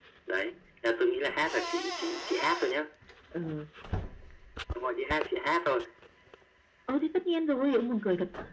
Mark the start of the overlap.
none

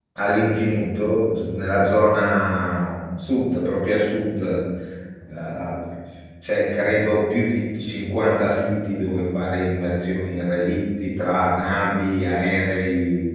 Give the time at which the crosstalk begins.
none

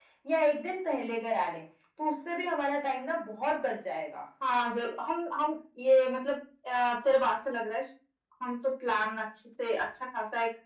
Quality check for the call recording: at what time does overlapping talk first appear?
none

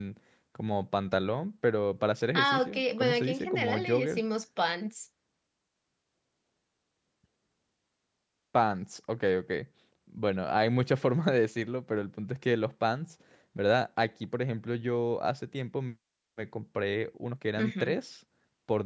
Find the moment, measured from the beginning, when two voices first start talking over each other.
2.3 s

